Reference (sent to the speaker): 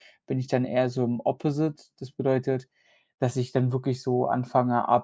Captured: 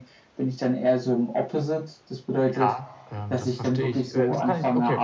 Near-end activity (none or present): present